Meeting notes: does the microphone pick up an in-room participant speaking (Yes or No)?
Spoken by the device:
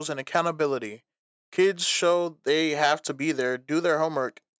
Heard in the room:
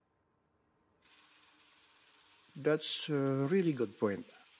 Yes